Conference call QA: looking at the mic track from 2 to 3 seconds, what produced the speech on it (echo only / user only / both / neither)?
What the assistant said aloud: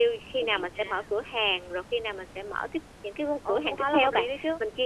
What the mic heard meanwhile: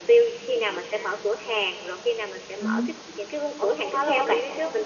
both